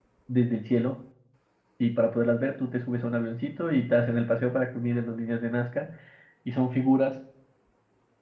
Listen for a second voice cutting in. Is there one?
No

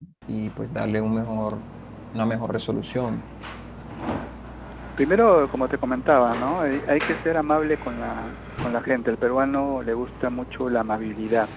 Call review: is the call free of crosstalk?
Yes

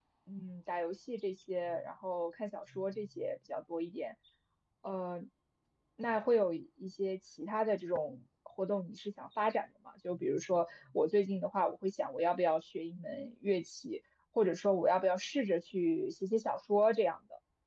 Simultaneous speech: No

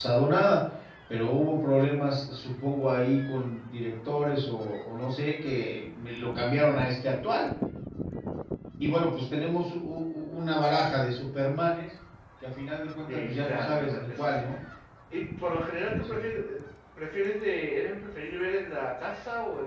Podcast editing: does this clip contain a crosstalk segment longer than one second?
Yes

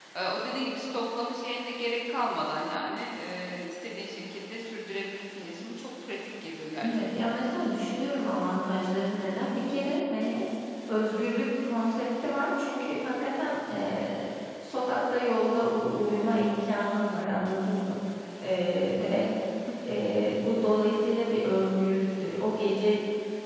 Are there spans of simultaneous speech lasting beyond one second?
No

